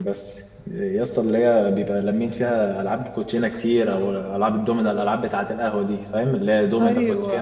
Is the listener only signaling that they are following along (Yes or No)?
No